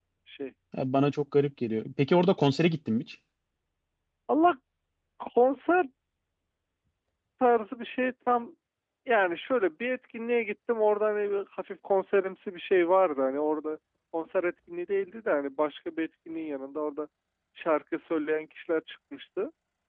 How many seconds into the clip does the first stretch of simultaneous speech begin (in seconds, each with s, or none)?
none